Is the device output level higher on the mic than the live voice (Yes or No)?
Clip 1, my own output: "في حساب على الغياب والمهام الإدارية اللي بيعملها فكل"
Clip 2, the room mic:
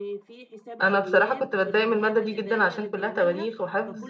No